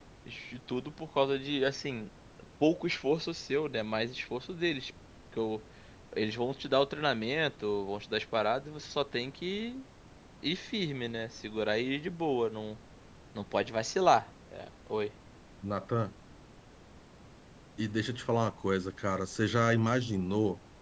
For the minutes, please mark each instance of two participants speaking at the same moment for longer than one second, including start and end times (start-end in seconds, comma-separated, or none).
none